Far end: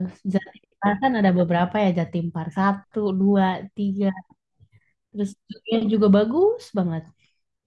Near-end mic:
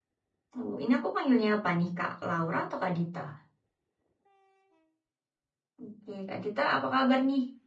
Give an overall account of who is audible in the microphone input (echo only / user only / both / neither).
user only